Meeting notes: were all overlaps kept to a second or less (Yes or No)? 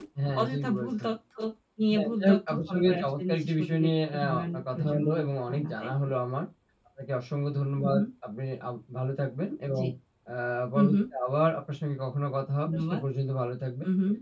No